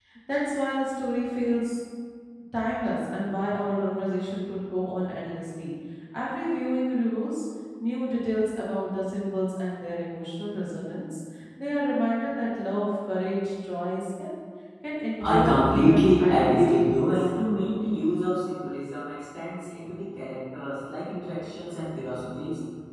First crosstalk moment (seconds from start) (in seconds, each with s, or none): 15.2 s